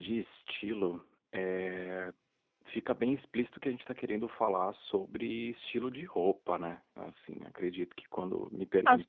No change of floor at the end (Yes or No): No